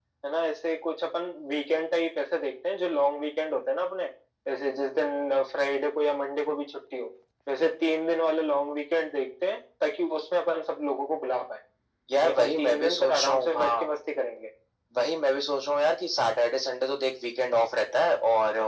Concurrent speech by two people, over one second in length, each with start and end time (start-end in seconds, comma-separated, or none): 12.2-13.9